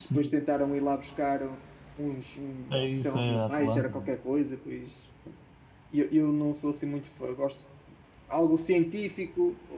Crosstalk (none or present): present